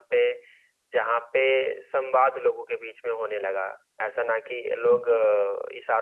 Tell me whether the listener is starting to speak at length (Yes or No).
No